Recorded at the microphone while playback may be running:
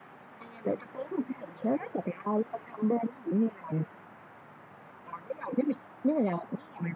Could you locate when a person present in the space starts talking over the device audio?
none

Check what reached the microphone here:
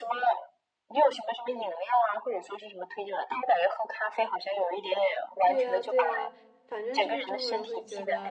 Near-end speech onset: 5.4 s

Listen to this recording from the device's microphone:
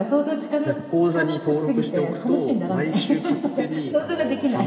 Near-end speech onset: 0.6 s

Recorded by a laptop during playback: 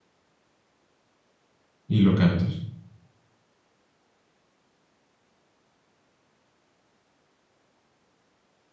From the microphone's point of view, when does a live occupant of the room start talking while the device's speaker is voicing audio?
1.9 s

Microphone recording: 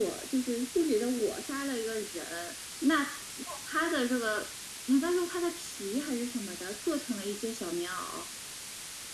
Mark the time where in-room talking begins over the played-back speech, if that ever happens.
none

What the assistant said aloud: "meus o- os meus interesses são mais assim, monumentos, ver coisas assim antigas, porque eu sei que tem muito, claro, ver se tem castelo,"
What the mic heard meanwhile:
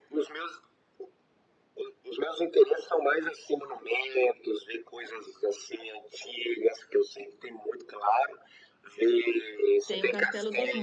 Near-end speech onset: 9.8 s

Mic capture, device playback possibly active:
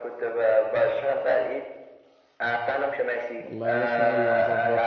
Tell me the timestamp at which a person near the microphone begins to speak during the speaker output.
3.4 s

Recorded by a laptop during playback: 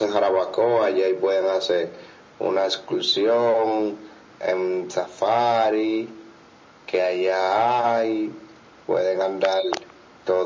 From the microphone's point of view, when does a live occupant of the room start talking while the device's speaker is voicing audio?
none

